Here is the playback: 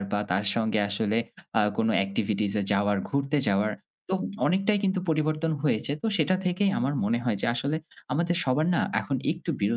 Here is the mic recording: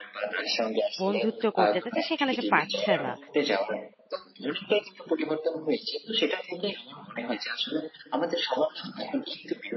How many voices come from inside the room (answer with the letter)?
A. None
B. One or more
B